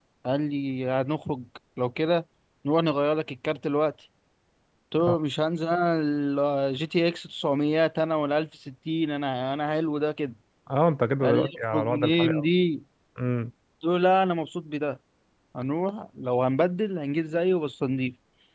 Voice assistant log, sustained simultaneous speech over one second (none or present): present